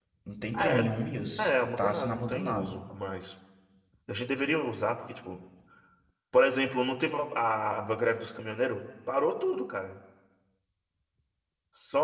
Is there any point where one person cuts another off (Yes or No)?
Yes